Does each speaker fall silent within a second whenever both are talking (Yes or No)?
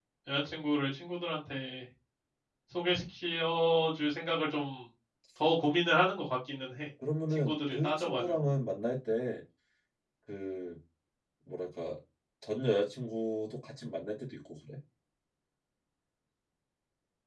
No